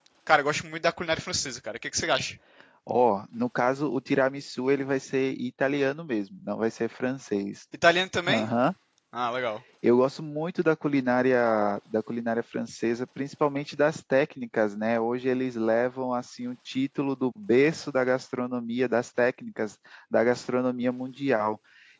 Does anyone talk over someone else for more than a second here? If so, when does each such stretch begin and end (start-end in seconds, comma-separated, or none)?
none